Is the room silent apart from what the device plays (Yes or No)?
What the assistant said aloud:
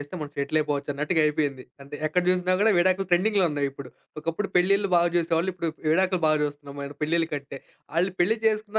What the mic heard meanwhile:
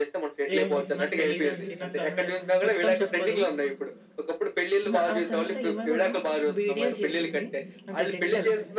No